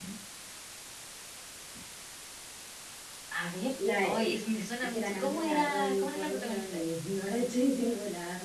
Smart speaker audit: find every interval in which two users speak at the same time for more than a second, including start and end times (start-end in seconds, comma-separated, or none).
4.9-6.8